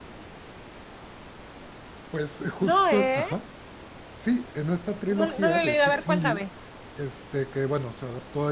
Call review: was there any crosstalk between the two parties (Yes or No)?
Yes